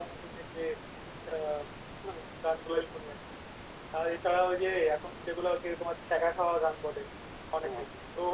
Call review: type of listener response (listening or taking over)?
listening